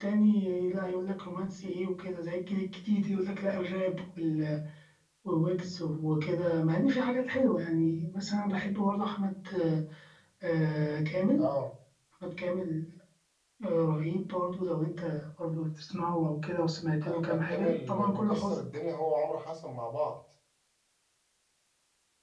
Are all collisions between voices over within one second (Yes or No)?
No